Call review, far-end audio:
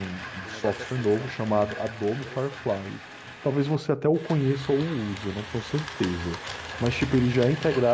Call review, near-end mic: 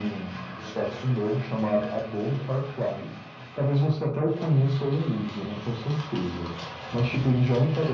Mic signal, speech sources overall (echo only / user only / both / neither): echo only